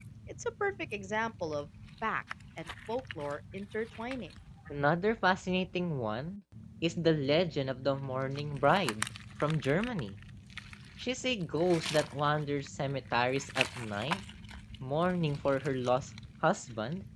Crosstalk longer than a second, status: none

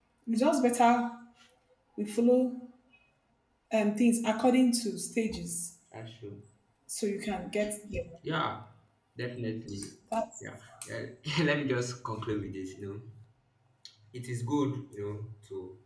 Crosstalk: none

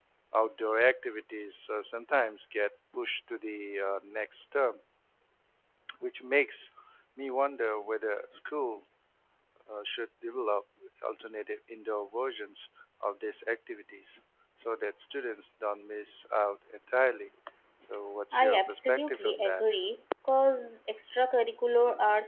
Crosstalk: present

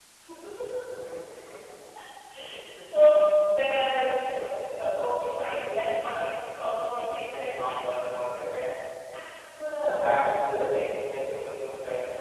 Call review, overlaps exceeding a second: present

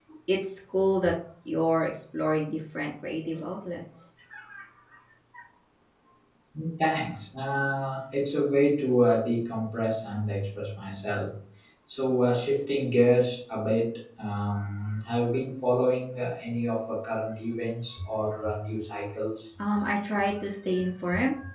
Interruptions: none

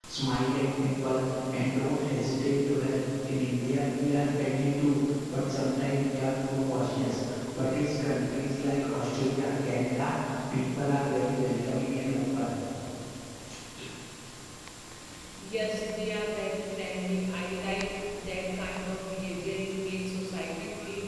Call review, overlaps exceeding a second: none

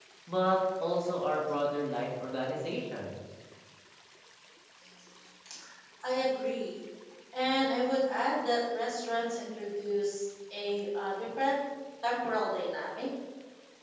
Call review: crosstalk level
none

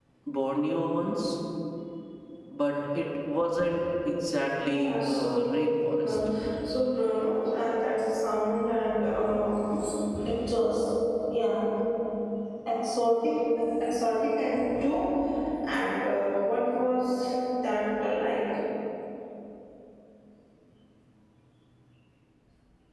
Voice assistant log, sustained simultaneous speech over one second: present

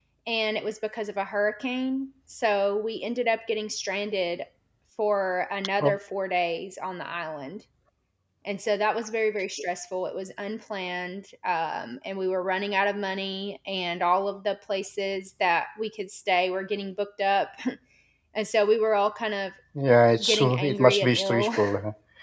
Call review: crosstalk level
present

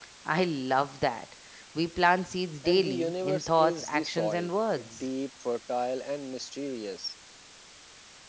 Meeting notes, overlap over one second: present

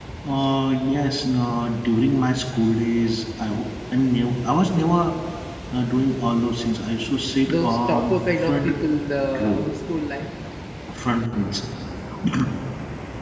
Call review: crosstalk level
present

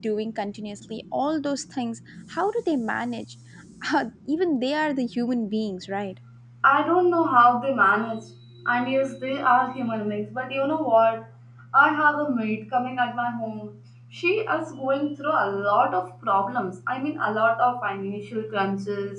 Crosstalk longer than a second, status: none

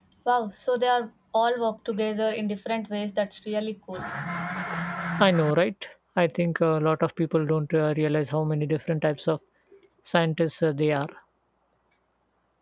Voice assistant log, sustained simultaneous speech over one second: none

